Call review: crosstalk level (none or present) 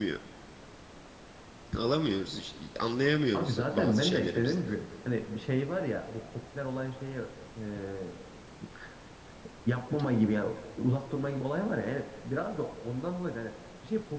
present